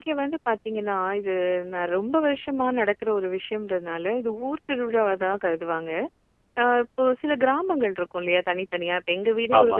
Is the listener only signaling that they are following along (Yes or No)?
Yes